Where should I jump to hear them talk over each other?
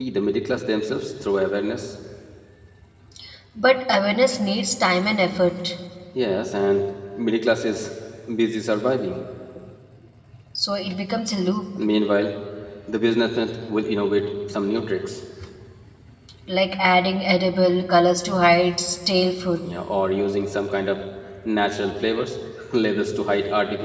none

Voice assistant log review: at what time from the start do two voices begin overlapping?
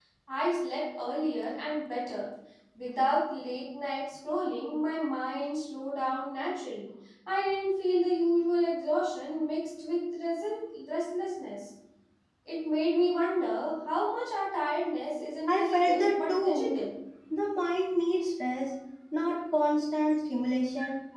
15 s

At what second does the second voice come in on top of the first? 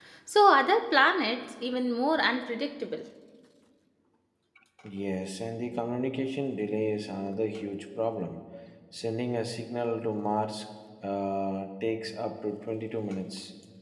none

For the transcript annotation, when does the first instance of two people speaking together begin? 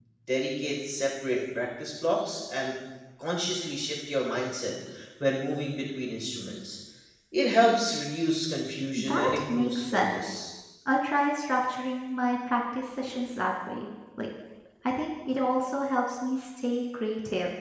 9 s

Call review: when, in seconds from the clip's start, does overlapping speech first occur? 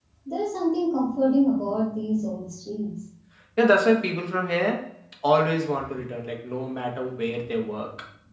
none

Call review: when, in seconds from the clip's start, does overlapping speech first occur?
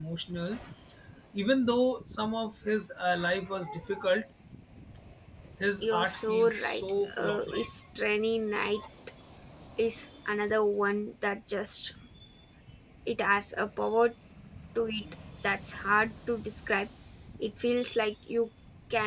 6 s

